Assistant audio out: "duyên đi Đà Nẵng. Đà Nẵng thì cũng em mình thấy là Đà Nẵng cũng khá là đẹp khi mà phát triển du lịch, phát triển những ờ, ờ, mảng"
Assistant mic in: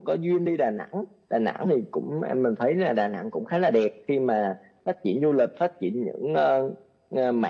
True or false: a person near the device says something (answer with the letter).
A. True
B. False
B